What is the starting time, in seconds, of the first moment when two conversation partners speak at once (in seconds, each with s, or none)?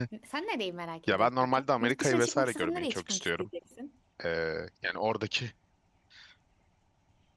1.1 s